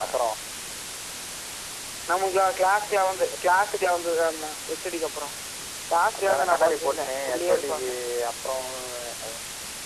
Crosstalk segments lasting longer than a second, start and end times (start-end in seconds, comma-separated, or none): 6.2-7.9